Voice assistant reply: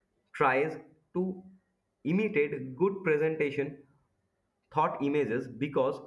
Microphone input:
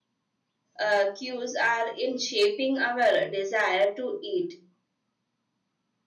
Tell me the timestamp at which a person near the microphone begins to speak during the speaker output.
0.8 s

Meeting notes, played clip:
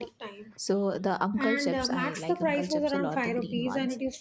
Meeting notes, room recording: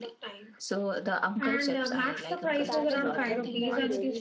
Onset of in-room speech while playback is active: 2.5 s

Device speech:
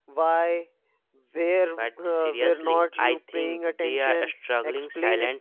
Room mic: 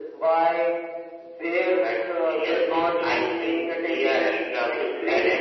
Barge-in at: none

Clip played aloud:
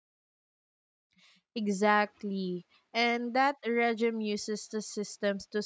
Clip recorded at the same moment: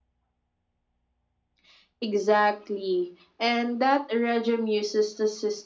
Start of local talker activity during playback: none

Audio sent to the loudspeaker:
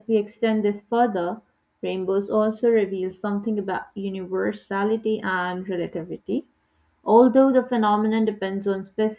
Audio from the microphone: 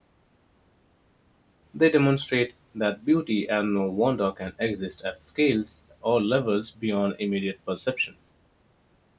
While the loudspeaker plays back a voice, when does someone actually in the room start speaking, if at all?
1.7 s

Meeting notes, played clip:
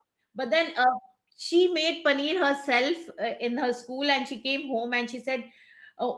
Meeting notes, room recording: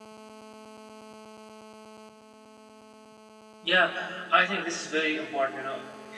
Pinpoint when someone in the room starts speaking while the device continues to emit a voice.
3.6 s

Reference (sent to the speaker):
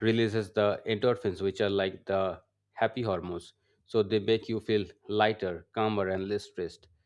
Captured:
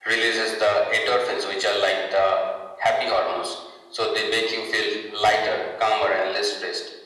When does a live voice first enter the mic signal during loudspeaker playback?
none

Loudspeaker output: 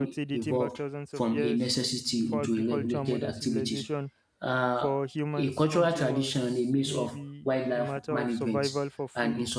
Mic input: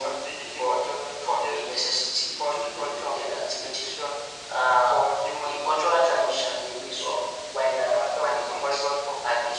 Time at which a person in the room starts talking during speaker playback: none

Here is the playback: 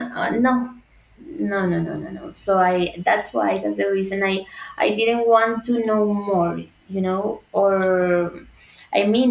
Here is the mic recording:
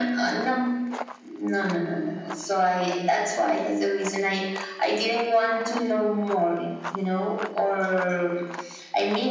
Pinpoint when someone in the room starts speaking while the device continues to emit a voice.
none

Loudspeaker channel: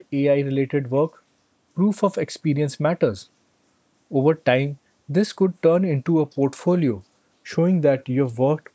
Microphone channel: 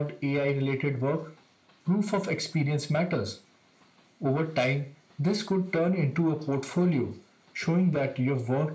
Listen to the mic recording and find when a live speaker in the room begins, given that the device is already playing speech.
none

